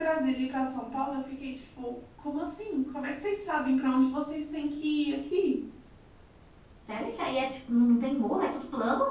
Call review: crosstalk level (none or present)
none